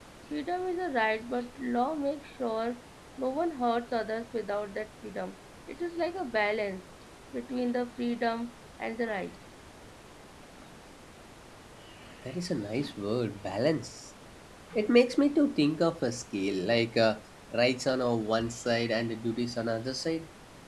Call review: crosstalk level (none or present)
none